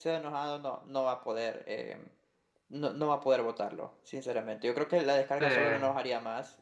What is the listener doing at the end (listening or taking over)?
listening